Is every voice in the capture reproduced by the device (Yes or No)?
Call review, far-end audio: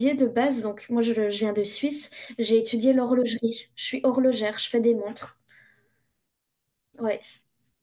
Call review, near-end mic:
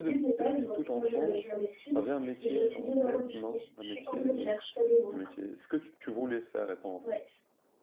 No